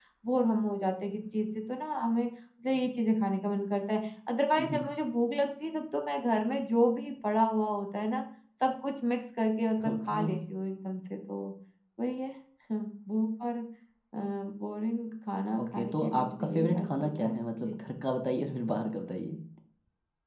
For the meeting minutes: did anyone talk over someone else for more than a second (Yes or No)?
Yes